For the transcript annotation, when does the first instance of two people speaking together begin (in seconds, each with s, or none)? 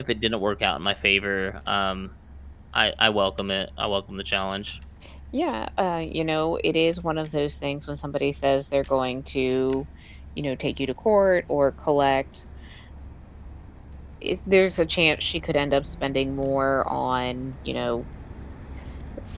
none